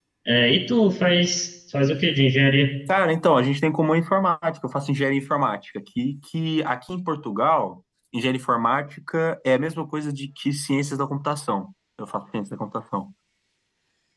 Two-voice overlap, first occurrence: none

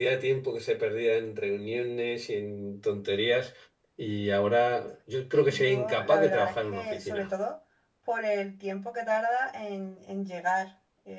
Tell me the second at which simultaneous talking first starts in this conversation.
5.4 s

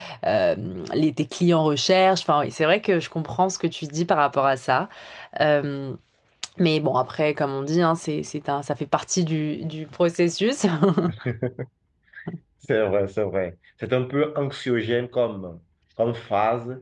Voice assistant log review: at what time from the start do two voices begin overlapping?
none

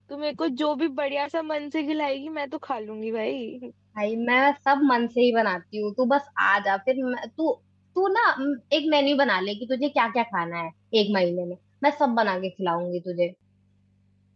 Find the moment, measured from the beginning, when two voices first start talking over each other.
none

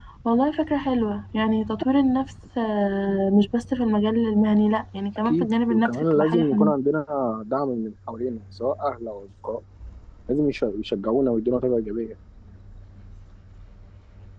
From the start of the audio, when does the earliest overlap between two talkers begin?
5.2 s

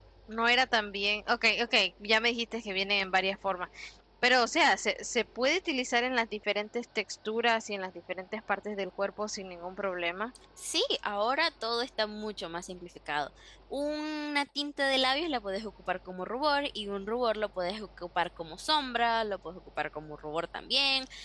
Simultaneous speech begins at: none

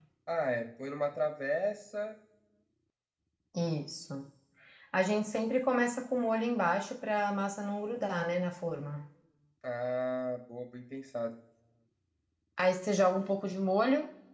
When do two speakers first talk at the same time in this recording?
none

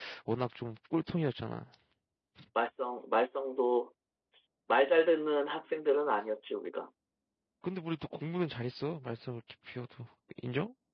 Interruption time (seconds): none

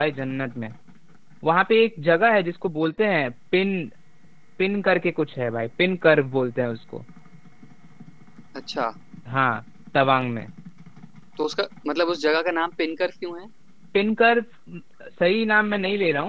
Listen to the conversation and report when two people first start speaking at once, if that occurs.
none

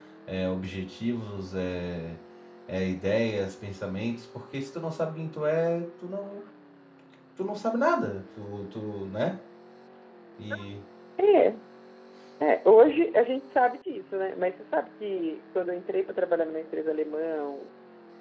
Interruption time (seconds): none

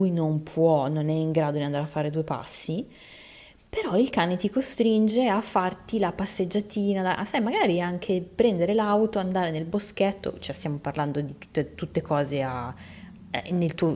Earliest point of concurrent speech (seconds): none

